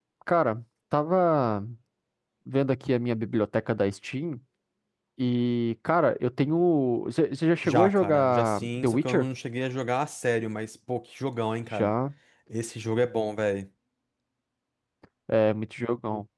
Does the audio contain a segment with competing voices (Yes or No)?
Yes